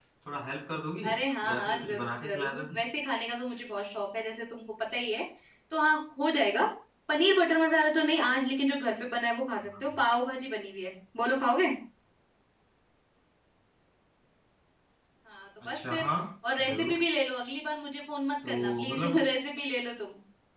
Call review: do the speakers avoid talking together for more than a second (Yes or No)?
No